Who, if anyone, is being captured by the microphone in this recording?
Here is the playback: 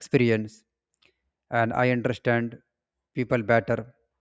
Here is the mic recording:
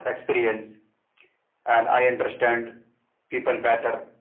echo only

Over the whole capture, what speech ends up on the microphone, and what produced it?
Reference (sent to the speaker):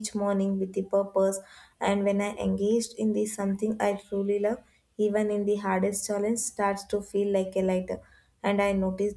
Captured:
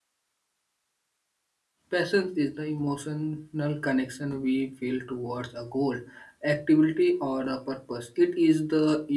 user only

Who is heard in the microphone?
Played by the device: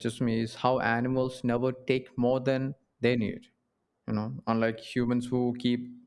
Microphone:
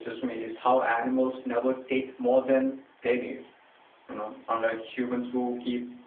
echo only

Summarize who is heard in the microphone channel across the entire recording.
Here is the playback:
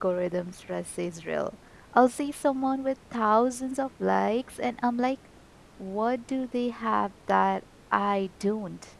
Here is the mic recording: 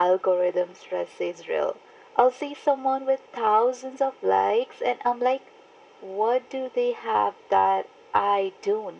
echo only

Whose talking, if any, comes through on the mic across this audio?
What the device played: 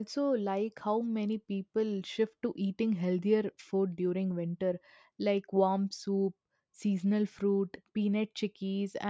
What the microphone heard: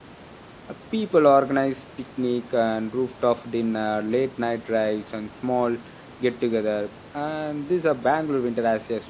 user only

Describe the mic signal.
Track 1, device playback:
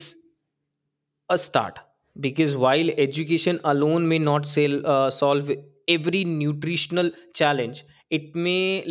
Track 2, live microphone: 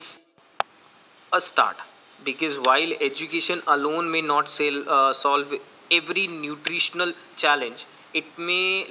echo only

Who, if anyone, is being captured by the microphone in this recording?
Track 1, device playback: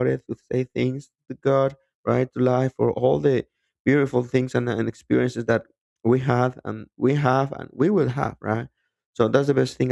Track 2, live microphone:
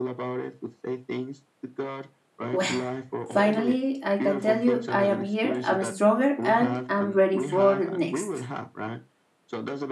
both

